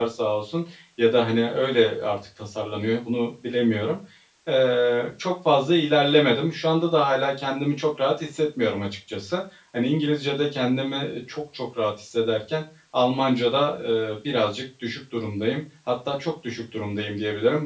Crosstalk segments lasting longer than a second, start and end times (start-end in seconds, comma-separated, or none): none